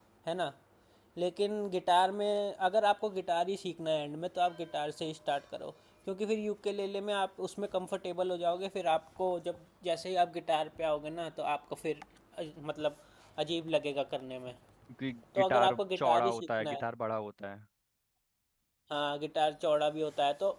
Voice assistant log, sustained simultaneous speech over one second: present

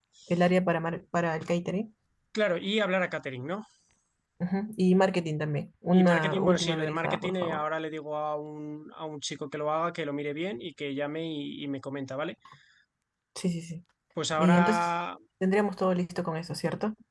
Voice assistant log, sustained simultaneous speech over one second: present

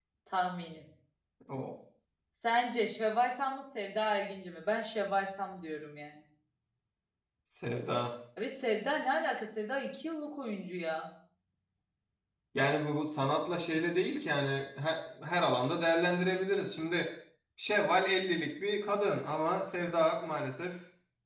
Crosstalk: none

